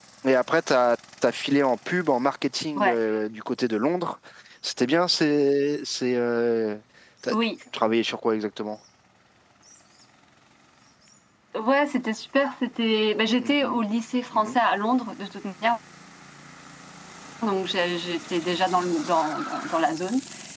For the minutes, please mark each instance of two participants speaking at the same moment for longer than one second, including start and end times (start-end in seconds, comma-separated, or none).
none